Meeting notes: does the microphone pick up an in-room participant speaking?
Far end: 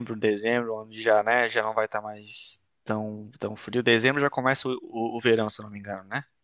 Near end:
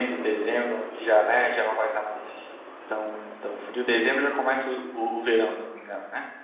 No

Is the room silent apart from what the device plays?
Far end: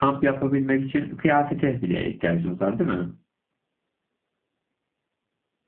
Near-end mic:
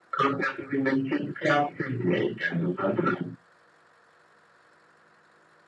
Yes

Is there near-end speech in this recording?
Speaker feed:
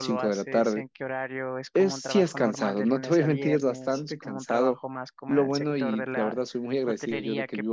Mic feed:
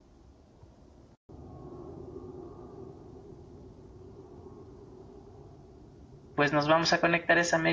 Yes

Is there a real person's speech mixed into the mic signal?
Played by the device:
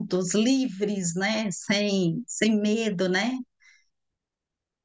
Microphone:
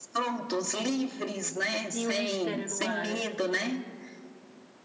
Yes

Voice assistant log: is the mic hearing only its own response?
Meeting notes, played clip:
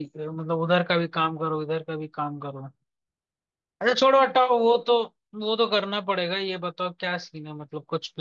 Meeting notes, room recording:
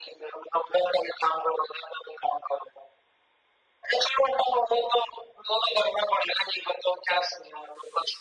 Yes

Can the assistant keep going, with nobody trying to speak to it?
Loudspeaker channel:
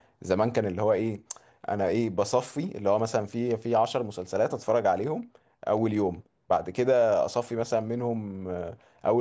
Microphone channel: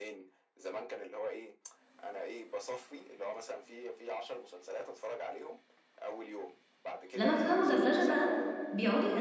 No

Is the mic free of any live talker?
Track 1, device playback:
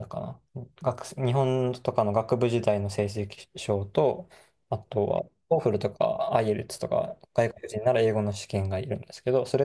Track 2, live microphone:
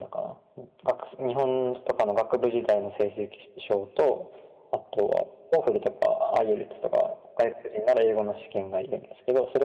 Yes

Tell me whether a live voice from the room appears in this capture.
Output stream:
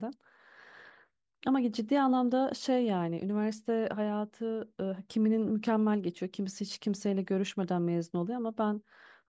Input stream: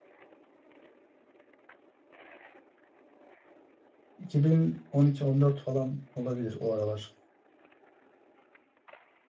Yes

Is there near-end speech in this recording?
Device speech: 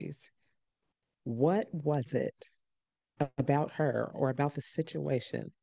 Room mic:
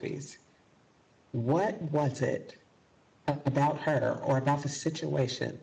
No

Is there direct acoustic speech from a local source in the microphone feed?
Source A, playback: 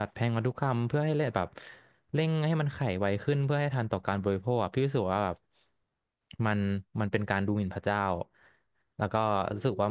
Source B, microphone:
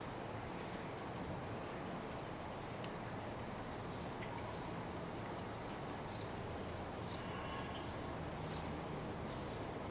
No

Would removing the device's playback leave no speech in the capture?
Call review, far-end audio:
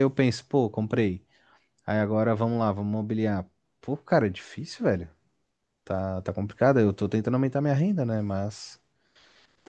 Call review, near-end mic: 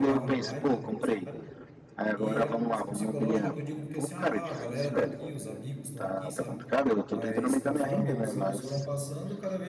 No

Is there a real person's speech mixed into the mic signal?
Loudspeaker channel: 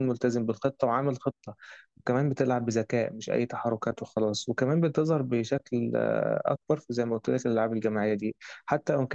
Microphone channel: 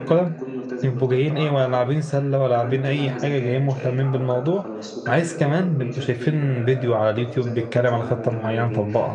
Yes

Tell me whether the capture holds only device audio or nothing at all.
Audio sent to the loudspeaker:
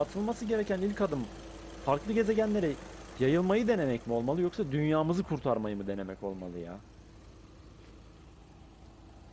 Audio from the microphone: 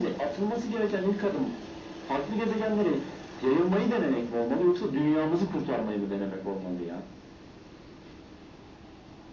Yes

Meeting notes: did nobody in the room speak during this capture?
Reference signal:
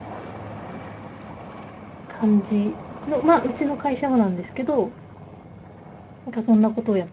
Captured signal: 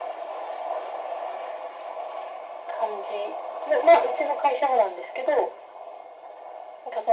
Yes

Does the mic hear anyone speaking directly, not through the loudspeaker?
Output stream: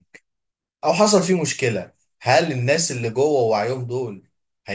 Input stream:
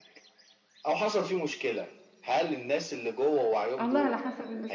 Yes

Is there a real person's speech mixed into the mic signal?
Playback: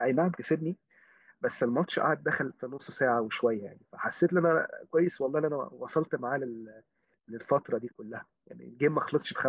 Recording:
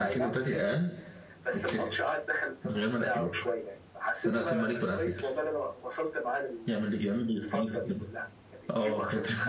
Yes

